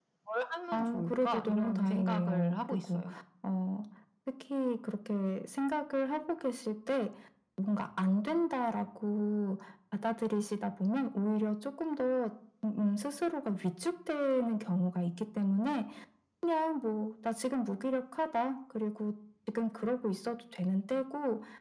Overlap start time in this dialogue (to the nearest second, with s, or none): 1 s